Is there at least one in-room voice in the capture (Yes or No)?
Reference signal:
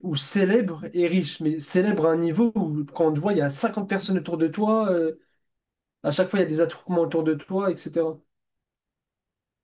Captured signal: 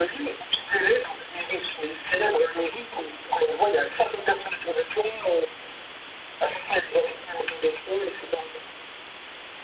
No